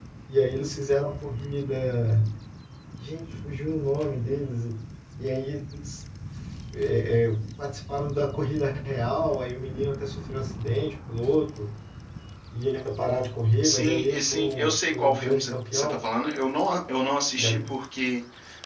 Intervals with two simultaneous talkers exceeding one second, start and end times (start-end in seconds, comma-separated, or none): 13.6-16.0